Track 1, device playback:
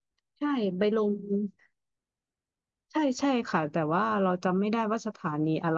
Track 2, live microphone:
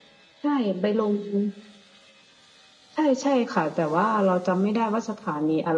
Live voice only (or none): none